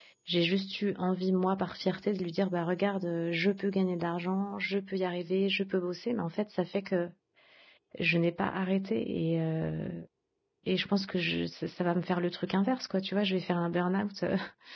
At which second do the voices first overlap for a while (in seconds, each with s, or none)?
none